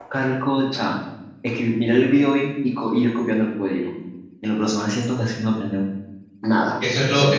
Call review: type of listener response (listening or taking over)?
taking over